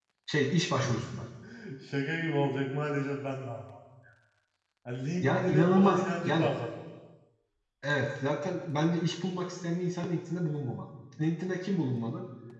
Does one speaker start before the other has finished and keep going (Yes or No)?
Yes